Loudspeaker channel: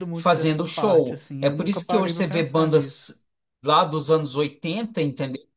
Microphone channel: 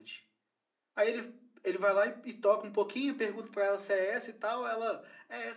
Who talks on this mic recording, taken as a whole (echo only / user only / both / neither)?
user only